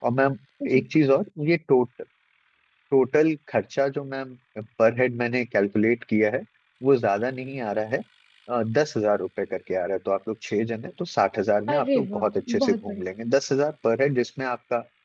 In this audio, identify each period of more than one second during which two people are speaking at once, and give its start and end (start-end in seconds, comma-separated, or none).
11.7-13.0